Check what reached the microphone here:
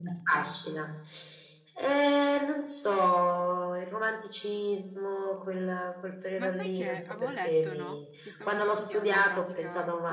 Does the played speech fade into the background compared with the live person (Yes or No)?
No